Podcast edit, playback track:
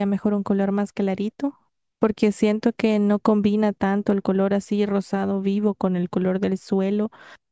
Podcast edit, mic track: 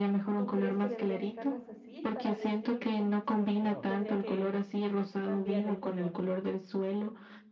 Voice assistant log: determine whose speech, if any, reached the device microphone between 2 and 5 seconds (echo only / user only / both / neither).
both